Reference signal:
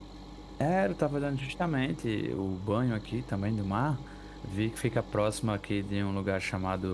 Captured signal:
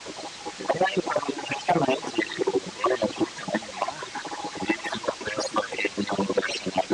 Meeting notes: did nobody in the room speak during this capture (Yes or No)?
Yes